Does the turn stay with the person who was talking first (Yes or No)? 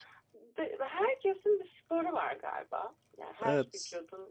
Yes